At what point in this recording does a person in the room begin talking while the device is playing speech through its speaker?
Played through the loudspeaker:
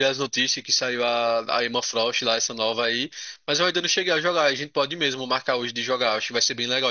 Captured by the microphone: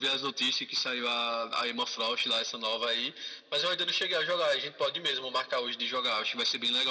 none

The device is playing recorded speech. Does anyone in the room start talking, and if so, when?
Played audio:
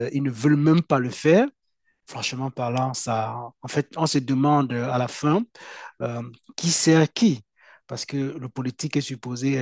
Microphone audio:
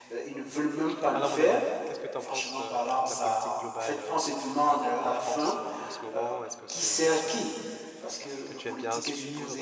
1.1 s

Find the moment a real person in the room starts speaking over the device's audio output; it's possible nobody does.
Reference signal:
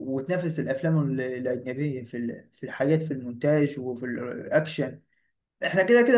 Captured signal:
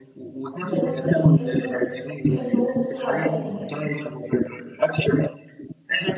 0.6 s

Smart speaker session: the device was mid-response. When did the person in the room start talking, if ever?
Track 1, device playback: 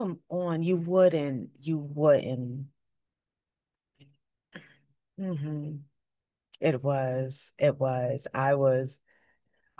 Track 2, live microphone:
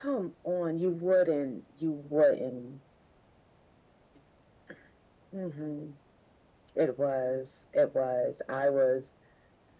none

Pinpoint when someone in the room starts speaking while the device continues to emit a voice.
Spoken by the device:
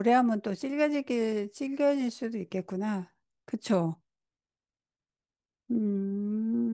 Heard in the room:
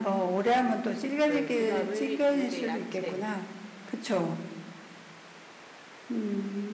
1.3 s

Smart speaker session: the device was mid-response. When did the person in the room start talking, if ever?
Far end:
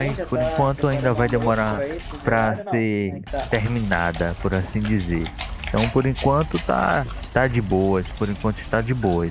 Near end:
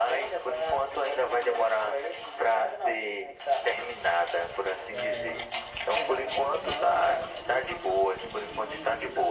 5.0 s

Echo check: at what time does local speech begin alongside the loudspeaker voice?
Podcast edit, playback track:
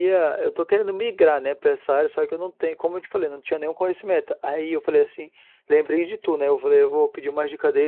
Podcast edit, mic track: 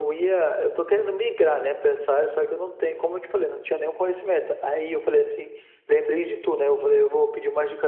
none

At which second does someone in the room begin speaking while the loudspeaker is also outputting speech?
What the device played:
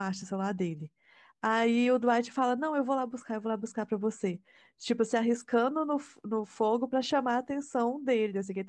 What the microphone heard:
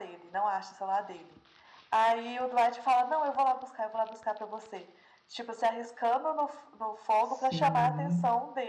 7.2 s

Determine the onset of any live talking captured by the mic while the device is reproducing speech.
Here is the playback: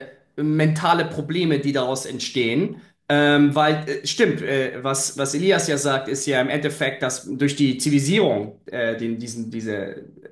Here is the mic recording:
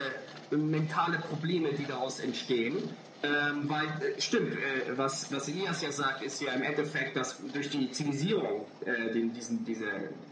none

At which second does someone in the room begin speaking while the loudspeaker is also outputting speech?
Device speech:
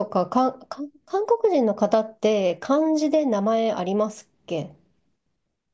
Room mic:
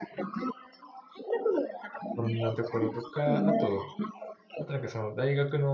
2.1 s

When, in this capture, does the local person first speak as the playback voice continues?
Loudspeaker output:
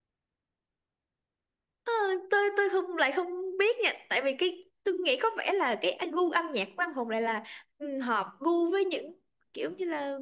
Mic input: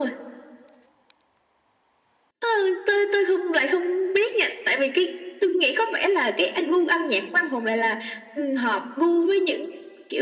none

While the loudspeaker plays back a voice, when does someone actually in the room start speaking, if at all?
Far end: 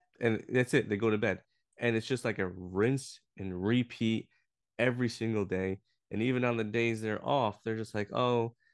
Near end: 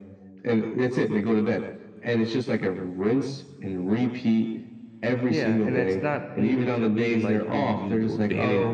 5.3 s

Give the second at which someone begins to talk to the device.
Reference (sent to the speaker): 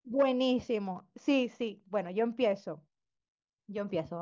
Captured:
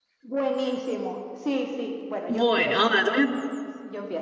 2.3 s

